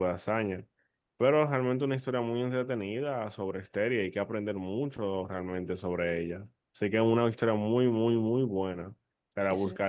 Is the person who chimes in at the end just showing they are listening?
Yes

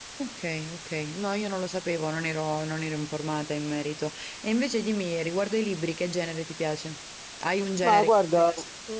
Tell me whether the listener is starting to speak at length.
Yes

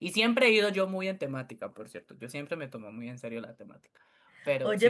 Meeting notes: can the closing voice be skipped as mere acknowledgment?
No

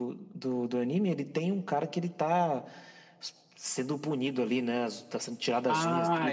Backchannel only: No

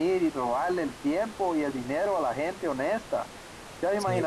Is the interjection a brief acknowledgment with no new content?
Yes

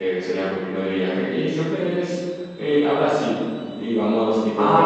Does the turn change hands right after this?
No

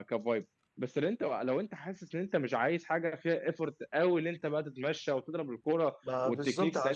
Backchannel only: No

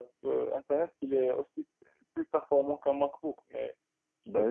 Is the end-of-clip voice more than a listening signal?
Yes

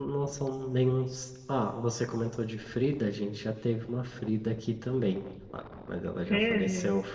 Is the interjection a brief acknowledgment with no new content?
Yes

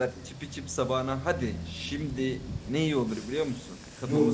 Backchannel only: No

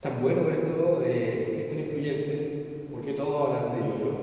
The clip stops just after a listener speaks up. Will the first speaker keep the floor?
Yes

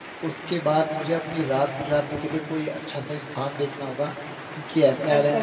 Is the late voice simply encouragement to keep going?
No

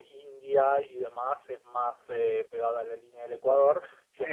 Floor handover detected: No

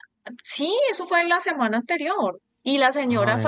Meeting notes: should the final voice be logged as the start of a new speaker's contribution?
No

